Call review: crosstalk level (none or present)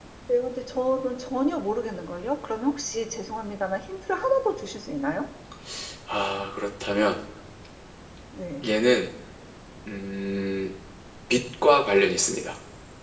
none